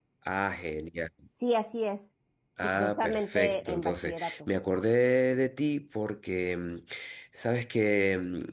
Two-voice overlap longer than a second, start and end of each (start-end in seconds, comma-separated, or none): 2.6-4.5